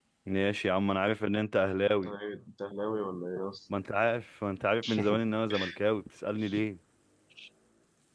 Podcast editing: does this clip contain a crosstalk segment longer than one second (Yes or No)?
No